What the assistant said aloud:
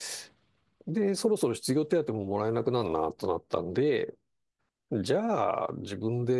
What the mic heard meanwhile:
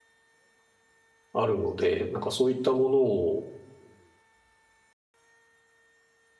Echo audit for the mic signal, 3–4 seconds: user only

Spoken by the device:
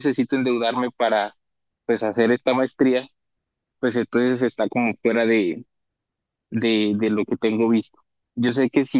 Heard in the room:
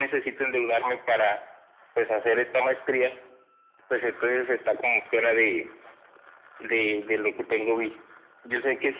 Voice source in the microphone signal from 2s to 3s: echo only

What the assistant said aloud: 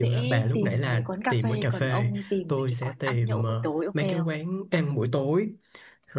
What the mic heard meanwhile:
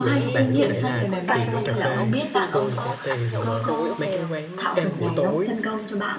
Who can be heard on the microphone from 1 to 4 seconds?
both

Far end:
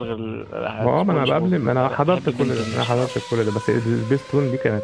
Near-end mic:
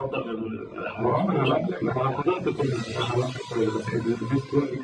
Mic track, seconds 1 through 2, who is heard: echo only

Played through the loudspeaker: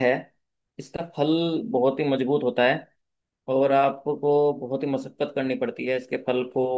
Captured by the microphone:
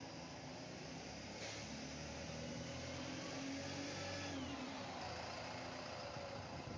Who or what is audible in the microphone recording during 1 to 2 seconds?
neither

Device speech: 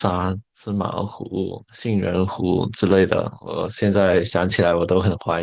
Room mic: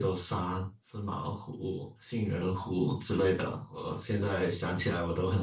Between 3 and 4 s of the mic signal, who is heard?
echo only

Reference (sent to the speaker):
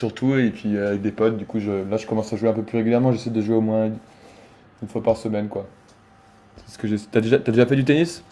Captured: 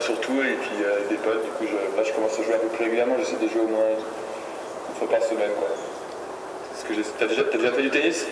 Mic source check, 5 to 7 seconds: echo only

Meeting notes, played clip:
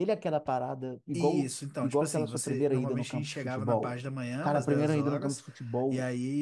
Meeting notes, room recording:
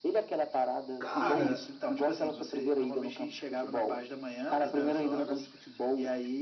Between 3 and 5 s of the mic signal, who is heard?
echo only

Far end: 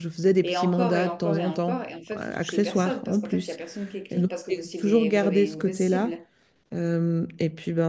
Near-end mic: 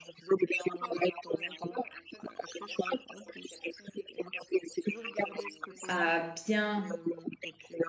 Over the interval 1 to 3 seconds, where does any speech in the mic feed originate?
echo only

